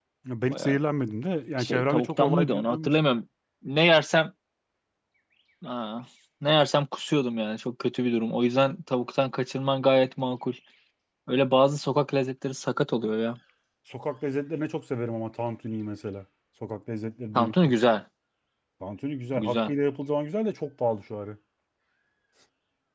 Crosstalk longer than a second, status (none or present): present